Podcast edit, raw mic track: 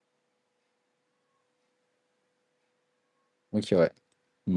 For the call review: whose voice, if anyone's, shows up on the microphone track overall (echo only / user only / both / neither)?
user only